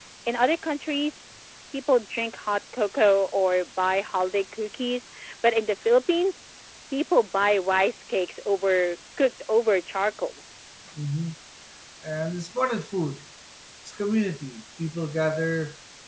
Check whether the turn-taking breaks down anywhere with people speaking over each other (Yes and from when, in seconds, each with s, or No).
No